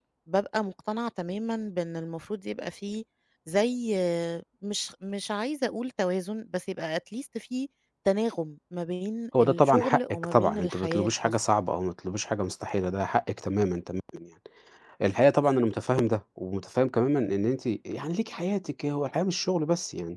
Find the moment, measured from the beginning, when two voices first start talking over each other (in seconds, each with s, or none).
9.3 s